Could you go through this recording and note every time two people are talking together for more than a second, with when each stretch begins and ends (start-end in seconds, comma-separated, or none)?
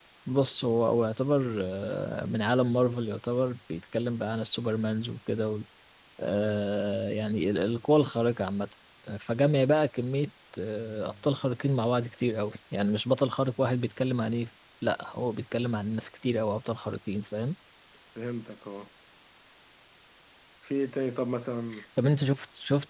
none